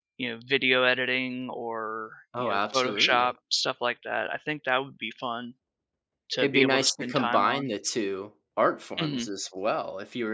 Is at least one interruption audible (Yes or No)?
Yes